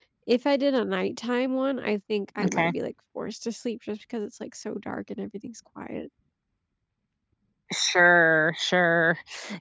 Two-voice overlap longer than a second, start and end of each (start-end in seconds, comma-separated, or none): none